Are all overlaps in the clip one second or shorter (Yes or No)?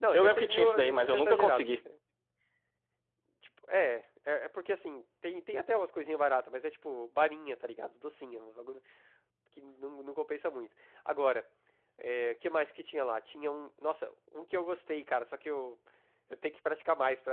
No